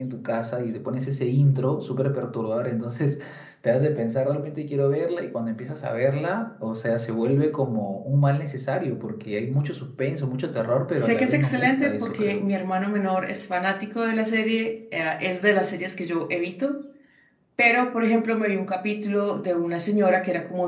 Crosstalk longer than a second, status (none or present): present